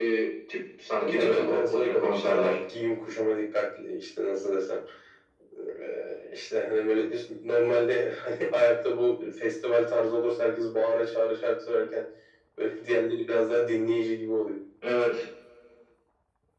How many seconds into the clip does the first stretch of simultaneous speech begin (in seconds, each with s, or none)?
0.9 s